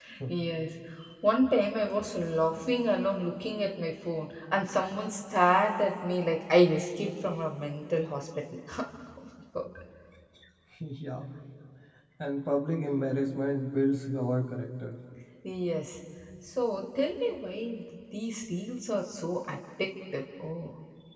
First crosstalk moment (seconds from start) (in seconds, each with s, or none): none